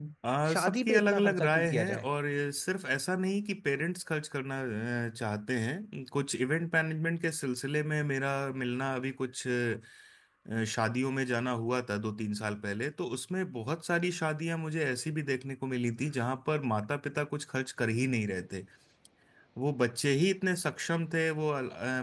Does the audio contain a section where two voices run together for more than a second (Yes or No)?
Yes